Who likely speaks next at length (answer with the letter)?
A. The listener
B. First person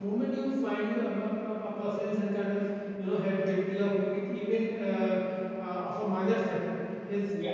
B